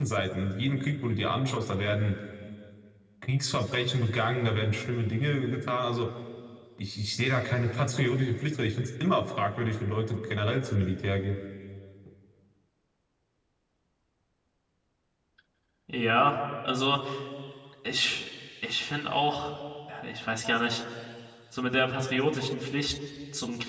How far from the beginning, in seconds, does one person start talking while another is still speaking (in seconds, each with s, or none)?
none